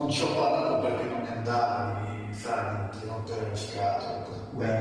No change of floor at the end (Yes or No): Yes